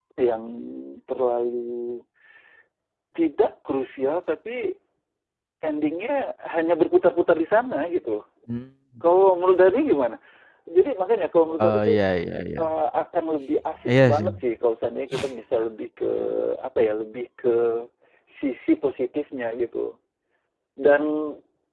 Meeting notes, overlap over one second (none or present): none